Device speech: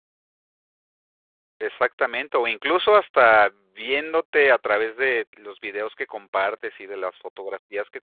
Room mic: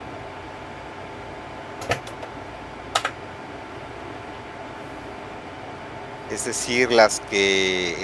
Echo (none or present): none